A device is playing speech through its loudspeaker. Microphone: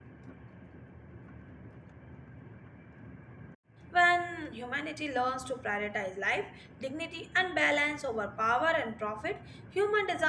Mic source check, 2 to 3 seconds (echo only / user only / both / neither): neither